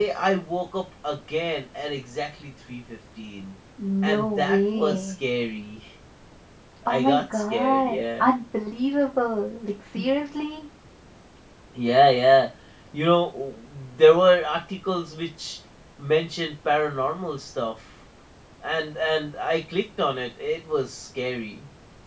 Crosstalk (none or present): present